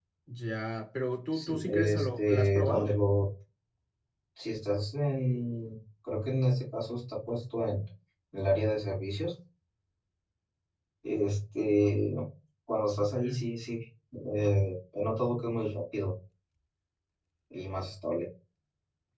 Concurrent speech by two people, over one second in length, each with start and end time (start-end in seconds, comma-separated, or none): 1.3-2.9